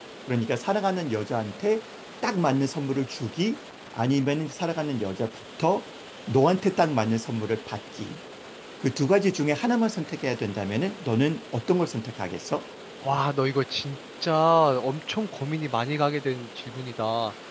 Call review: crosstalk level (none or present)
none